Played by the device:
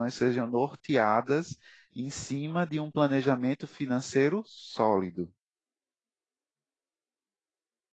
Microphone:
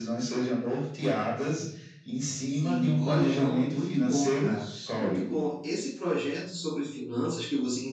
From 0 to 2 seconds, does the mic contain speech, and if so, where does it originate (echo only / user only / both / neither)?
echo only